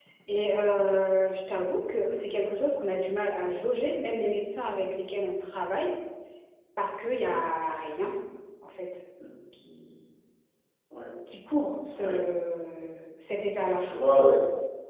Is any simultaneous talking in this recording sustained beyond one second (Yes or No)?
No